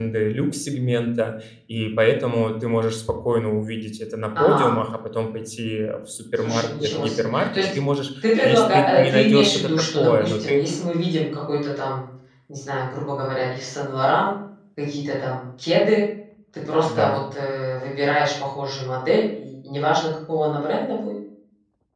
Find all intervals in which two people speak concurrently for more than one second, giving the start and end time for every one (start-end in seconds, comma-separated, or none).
6.4-7.8, 8.4-10.6